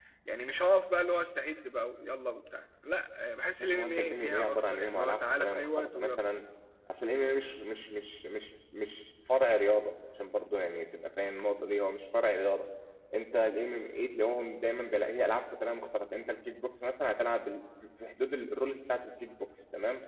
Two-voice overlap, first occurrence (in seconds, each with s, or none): 3.6 s